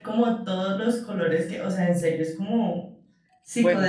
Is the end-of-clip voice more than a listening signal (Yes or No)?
Yes